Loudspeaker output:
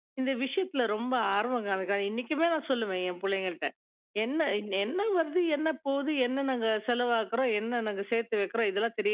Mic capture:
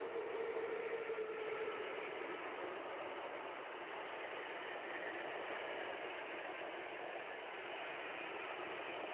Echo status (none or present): none